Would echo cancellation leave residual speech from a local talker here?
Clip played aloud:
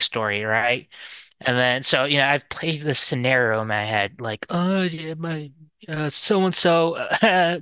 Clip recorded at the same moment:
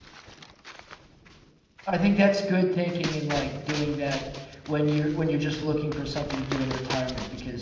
Yes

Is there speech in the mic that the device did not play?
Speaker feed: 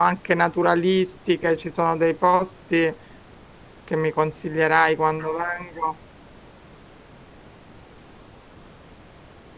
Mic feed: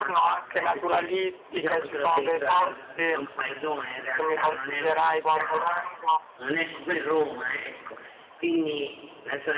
Yes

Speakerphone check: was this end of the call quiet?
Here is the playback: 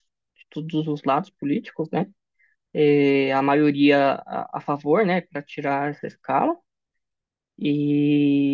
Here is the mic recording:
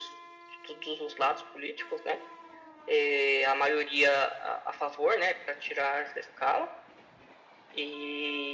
Yes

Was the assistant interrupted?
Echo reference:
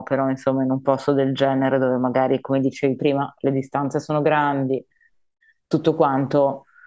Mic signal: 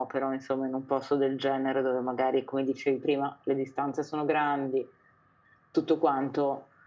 No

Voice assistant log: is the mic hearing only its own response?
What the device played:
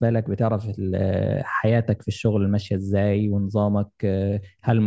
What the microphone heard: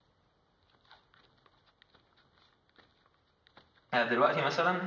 No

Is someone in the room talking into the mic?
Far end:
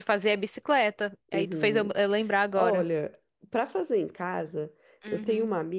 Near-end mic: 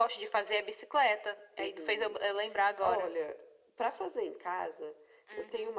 No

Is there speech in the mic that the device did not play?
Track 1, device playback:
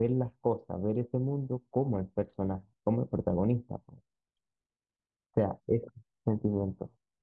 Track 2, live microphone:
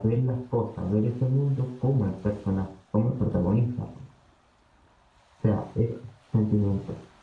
No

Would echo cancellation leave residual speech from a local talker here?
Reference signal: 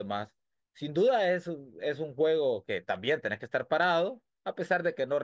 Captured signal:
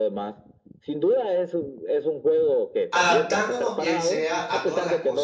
Yes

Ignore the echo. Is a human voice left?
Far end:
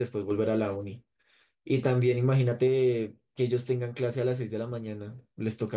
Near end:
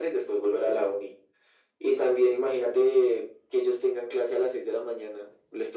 No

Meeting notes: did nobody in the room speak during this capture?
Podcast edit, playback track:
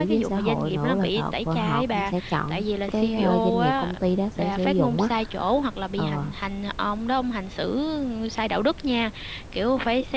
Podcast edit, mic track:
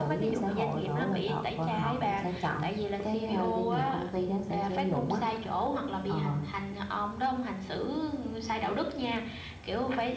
Yes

